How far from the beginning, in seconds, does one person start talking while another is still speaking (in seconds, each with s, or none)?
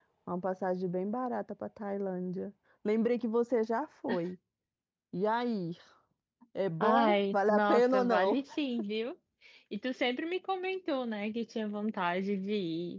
6.8 s